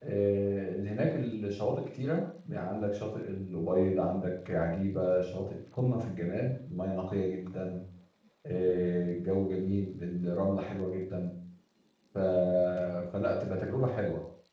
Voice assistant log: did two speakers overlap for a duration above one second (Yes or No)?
No